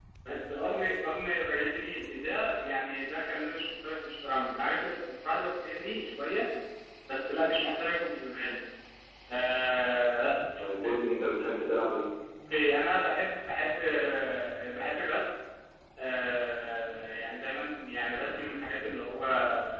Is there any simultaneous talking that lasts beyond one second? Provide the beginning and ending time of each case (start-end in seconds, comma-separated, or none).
none